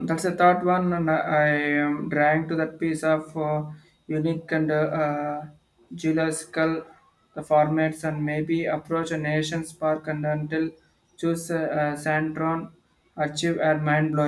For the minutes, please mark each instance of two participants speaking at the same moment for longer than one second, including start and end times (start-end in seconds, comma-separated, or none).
none